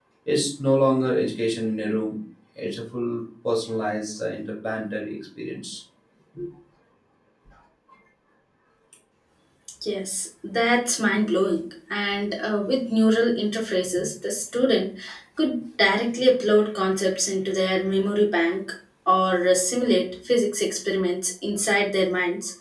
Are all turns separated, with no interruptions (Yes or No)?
Yes